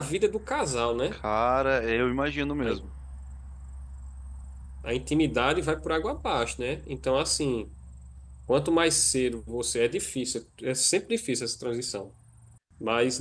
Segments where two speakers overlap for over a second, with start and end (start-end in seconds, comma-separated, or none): none